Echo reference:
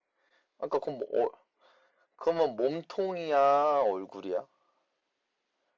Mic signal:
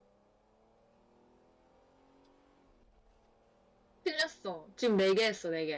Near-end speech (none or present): present